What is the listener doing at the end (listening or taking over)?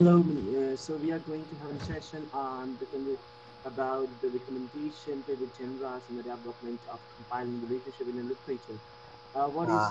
taking over